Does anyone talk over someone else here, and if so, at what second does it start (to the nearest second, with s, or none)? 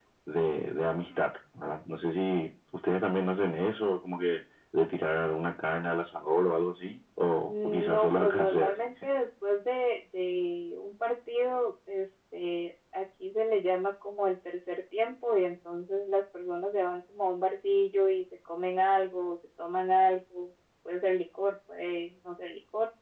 7 s